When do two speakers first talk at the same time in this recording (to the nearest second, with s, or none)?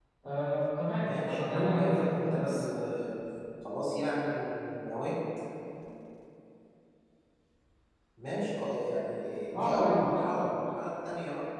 1 s